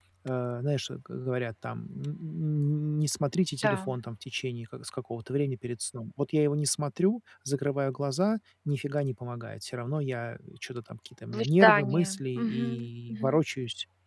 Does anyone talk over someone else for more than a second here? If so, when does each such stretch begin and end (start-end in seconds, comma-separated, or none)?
11.3-13.4